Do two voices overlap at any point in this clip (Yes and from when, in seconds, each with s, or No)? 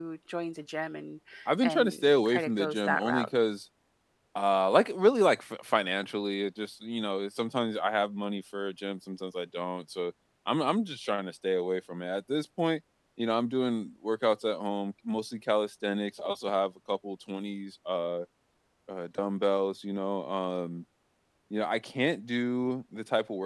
Yes, from 1.6 s